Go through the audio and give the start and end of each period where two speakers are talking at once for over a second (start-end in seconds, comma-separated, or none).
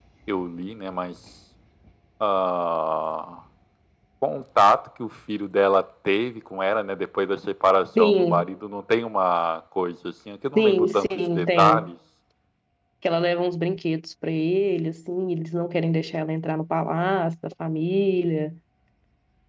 10.6-11.9